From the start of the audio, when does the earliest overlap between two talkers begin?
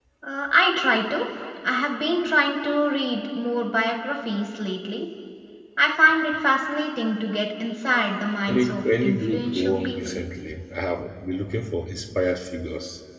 8.5 s

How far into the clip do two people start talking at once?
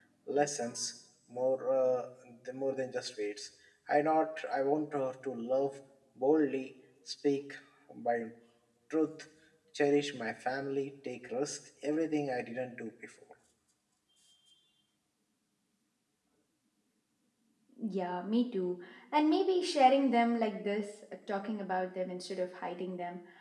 none

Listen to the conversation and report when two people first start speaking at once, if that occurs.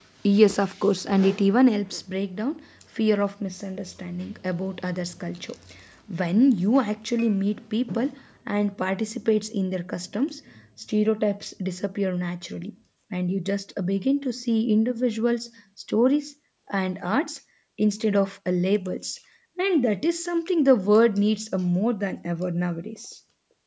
none

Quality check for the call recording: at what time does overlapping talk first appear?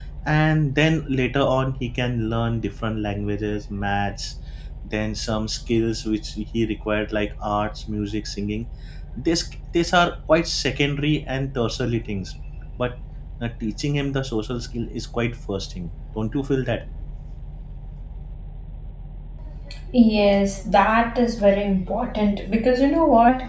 none

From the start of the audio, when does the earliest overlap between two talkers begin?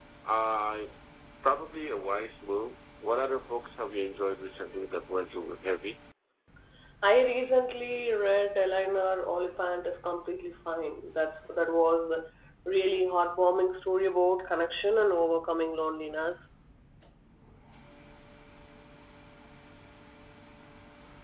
none

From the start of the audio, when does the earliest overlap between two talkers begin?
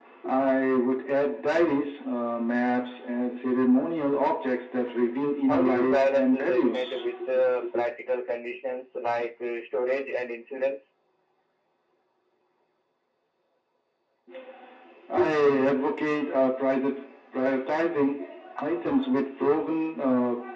5.5 s

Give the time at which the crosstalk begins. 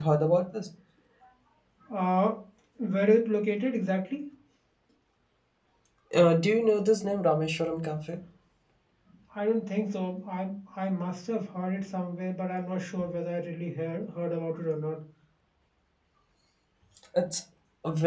none

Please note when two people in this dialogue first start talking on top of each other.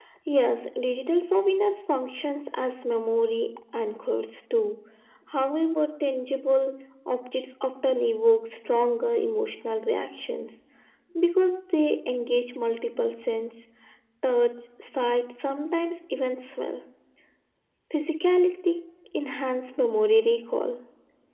none

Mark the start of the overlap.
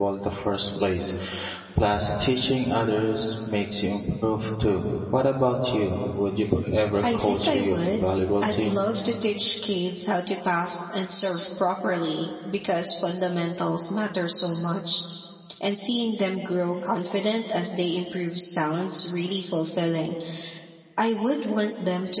7.0 s

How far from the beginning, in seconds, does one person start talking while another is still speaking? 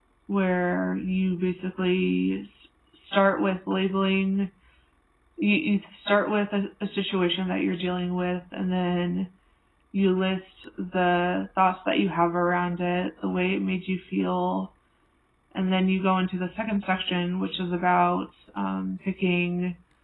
none

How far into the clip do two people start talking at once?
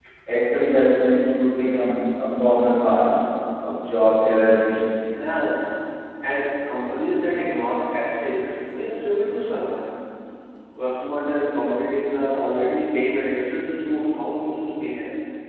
none

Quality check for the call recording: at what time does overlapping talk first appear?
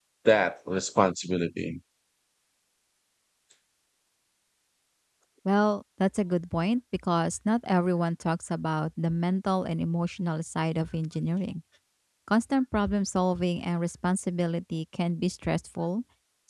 none

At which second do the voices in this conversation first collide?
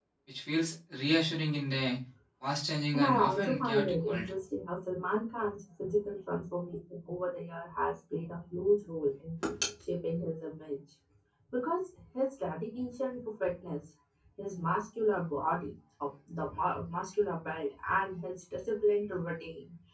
2.9 s

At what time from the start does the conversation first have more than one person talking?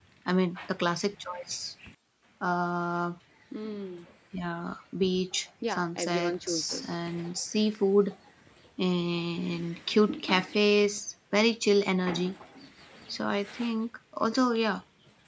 5.6 s

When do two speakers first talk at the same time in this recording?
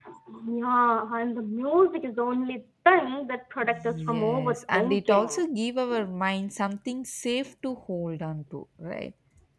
3.6 s

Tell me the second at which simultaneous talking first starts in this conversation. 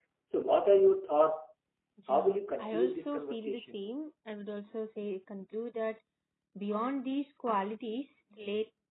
2.1 s

